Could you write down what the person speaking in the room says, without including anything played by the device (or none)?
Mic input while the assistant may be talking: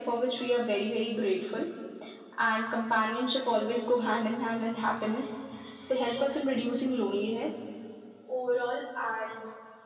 none